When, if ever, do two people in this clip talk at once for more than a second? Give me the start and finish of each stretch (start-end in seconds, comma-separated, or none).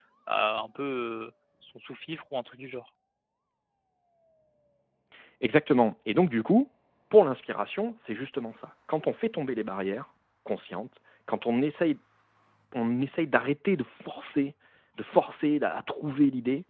none